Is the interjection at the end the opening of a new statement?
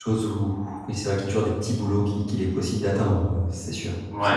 Yes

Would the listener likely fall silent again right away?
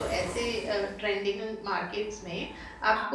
Yes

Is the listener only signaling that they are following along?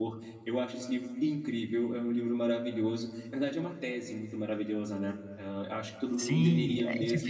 No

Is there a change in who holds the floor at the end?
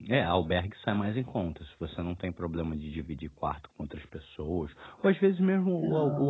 No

